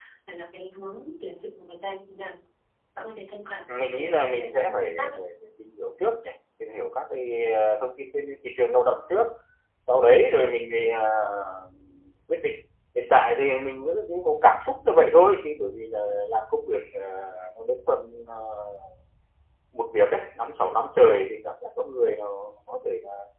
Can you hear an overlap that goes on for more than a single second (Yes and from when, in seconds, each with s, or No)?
Yes, from 3.7 s